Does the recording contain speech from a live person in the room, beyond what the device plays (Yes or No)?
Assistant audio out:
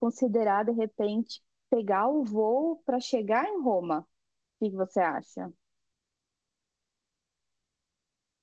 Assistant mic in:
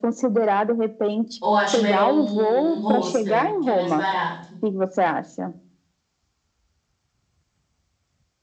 Yes